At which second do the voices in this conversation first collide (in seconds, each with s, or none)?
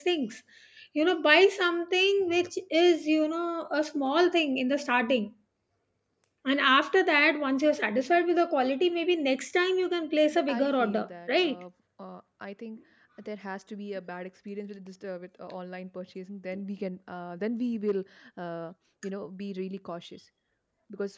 10.3 s